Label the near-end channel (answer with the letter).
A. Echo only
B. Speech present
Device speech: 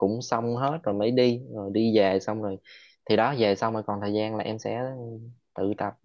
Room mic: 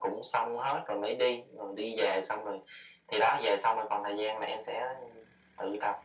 A